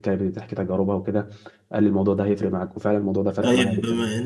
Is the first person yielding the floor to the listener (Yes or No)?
Yes